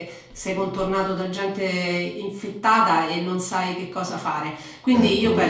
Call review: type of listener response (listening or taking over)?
listening